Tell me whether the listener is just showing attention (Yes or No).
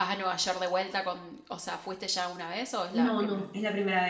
No